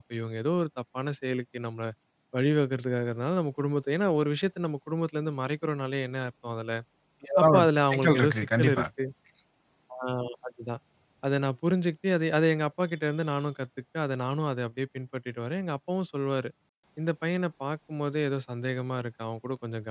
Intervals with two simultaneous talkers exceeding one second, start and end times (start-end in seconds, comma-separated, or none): 7.4-8.8